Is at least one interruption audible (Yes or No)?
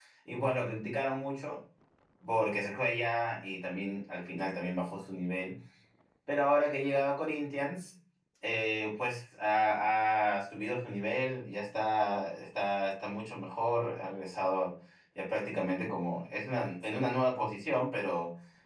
No